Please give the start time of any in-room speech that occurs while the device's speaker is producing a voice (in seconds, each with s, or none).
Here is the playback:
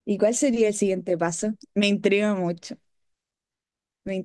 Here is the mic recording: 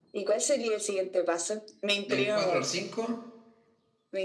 2.0 s